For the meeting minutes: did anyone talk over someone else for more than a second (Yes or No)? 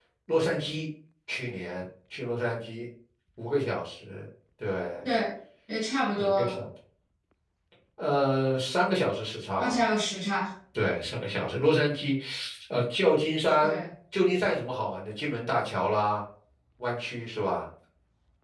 No